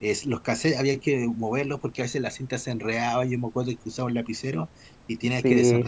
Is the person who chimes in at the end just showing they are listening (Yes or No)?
Yes